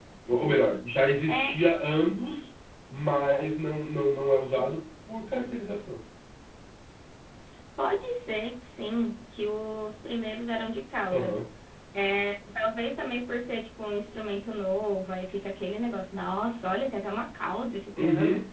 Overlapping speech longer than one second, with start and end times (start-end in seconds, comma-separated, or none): none